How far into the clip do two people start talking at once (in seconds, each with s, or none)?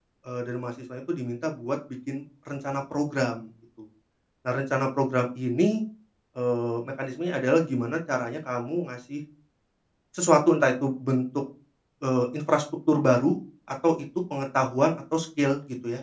none